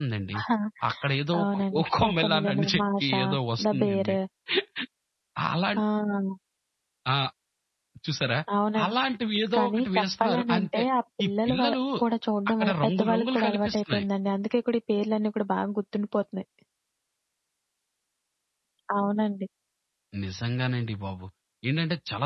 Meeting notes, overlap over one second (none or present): present